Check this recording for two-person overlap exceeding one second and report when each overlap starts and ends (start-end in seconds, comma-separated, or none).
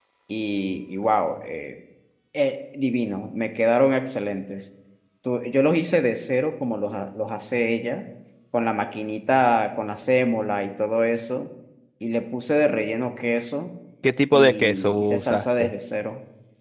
14.3-15.7